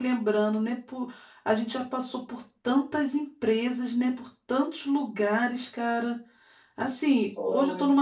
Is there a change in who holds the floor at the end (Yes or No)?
No